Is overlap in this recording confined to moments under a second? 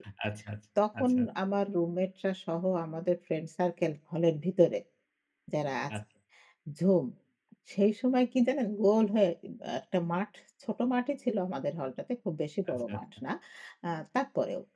Yes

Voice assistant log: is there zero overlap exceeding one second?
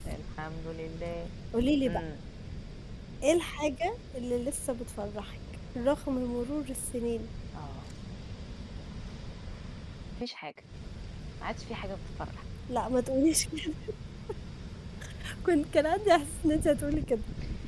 Yes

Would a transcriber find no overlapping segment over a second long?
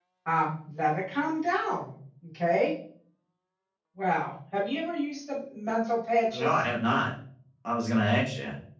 Yes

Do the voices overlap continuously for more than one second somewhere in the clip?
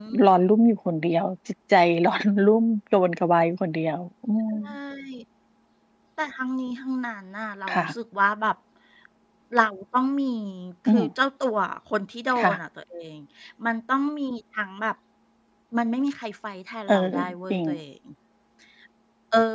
No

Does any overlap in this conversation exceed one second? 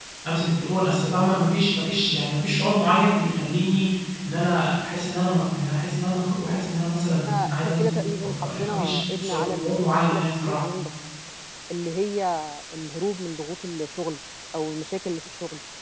Yes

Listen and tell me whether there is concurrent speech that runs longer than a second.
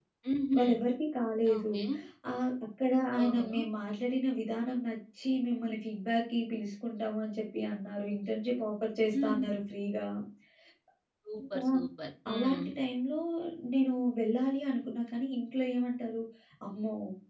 No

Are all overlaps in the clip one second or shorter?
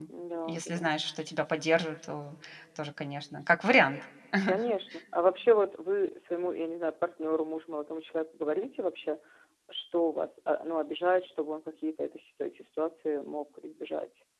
Yes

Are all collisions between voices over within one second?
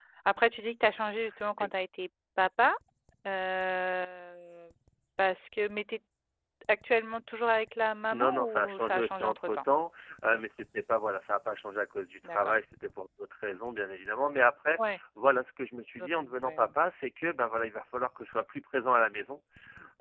No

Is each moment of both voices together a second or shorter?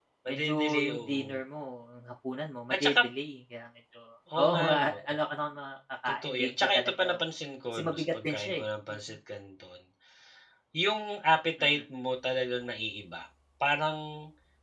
No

